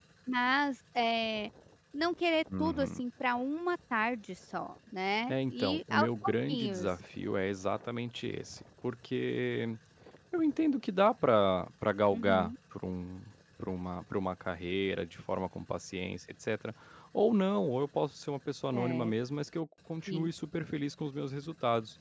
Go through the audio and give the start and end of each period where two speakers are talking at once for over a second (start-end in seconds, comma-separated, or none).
5.3-6.9